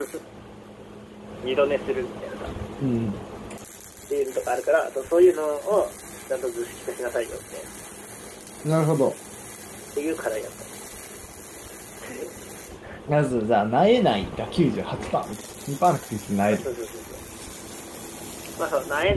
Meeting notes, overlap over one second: none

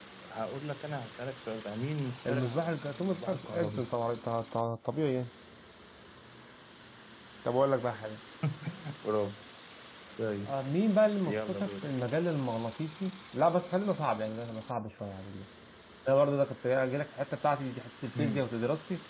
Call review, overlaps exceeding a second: present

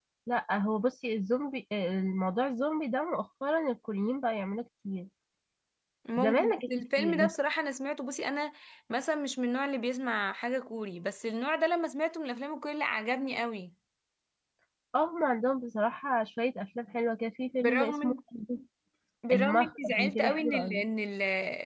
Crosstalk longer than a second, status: present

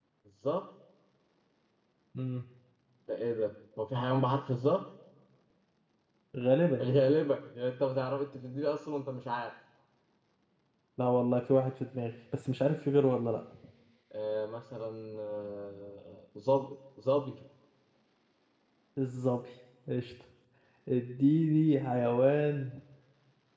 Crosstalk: none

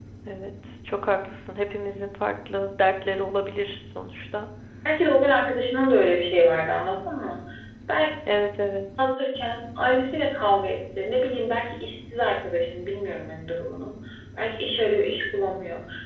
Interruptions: none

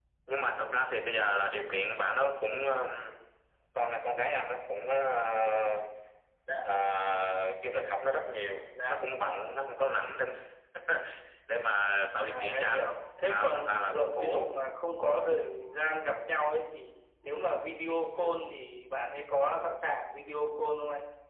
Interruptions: present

